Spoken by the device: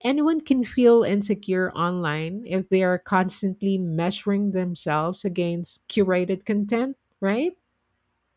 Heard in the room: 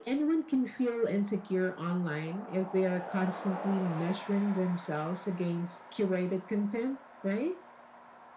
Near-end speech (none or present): none